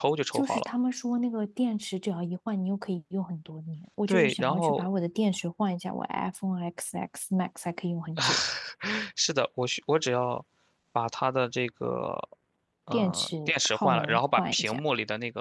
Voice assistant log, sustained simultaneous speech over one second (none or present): present